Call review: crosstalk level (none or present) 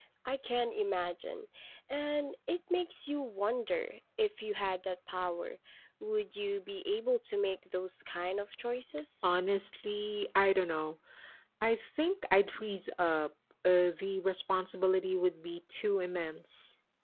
none